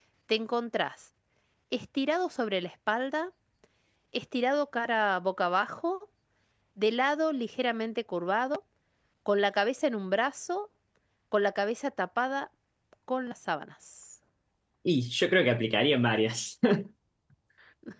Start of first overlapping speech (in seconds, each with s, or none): none